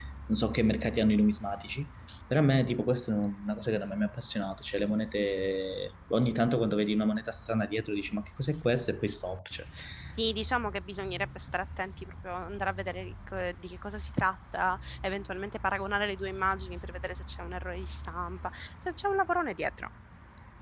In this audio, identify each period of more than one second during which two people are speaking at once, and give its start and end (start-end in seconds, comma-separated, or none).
none